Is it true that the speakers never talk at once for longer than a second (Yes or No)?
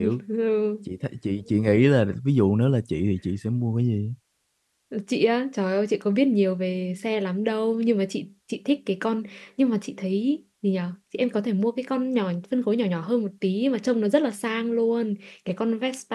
Yes